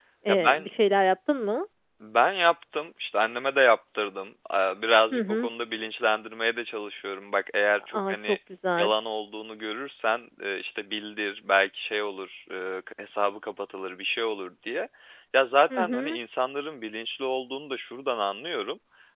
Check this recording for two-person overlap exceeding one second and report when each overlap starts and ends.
none

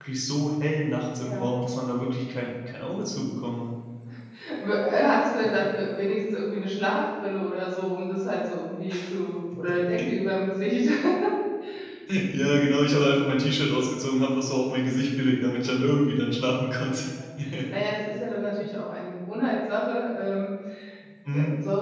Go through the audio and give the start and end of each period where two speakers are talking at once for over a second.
none

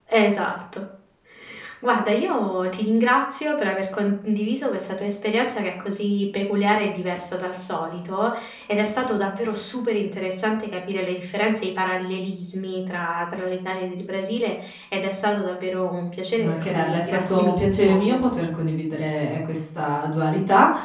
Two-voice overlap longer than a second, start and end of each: 16.3-18.2

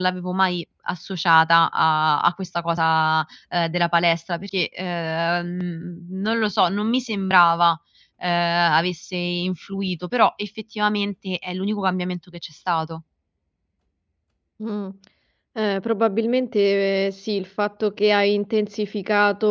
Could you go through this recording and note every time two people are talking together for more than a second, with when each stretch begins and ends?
none

